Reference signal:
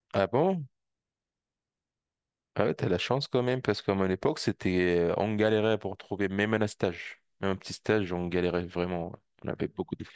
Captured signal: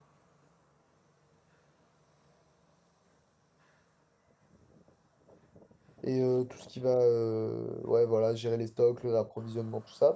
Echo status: none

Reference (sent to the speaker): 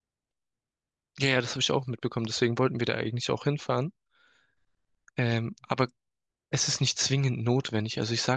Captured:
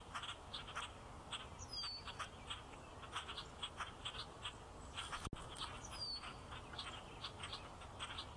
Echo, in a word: none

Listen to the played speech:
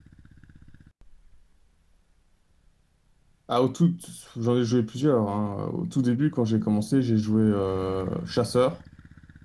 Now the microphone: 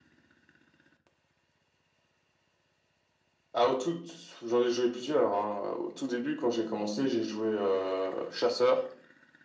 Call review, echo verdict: present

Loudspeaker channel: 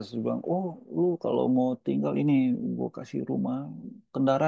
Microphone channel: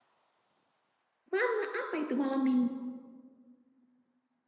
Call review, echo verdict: none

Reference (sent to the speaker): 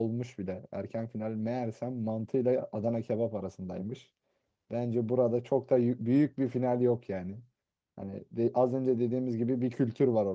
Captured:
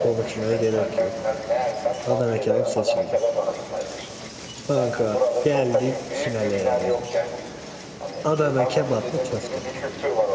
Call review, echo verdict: present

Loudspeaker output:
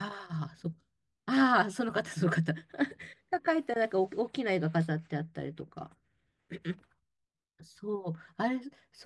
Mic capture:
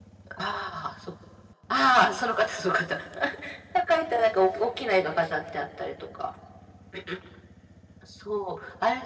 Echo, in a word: present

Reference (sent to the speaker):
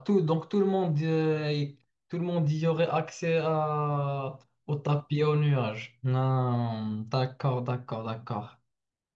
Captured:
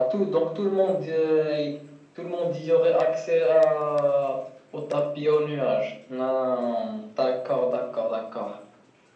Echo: present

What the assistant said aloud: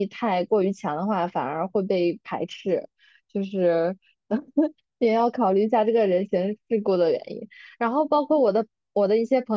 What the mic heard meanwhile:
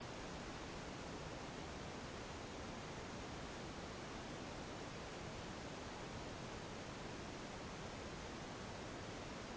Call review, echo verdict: none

